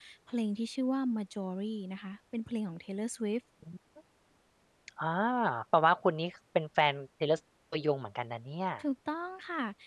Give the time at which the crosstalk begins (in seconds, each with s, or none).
none